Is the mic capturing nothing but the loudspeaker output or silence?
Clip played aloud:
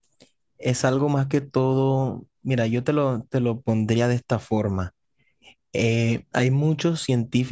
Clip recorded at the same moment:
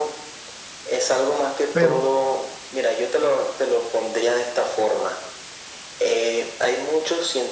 No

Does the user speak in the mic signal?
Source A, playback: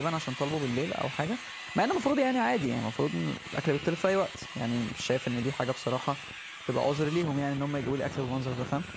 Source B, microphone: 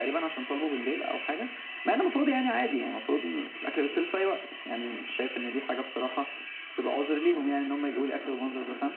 No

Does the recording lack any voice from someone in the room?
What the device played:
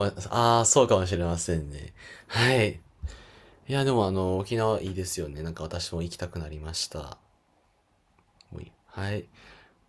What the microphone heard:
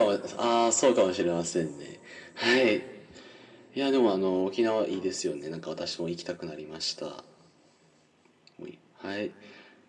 Yes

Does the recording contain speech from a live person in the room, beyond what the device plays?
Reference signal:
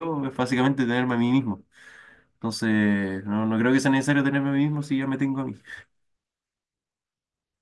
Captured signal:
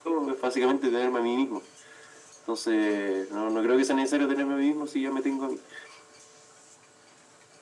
No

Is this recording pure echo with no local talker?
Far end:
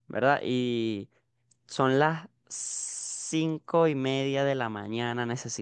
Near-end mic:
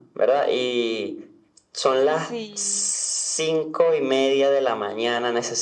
No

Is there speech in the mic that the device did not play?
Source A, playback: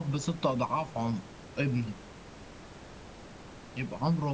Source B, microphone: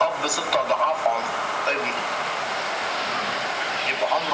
No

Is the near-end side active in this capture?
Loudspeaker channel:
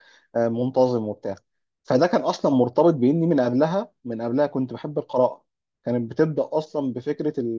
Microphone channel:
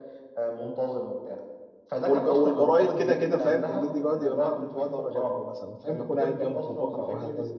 Yes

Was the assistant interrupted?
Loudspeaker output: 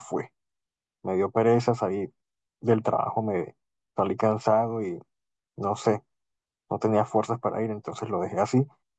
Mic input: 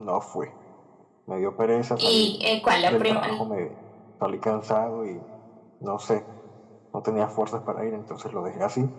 Yes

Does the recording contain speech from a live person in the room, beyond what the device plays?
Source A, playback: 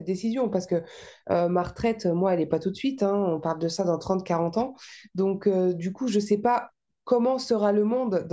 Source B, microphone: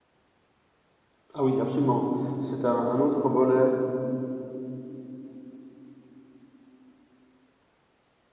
Yes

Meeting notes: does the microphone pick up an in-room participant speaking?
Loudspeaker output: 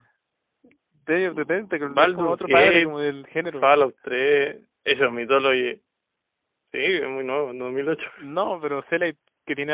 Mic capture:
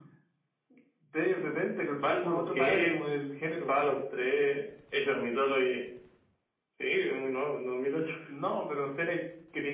No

